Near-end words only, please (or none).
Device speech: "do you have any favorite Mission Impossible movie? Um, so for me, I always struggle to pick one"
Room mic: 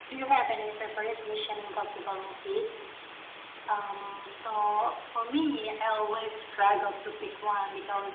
none